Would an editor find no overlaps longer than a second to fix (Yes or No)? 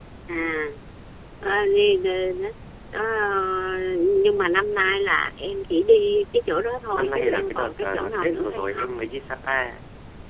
No